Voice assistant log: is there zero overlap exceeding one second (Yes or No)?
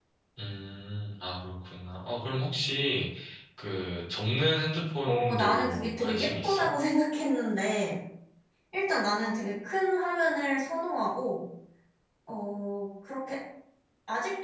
No